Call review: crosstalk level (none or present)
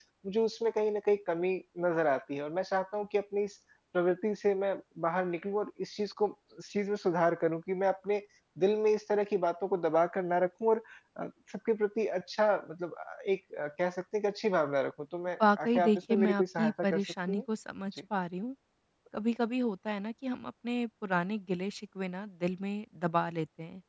present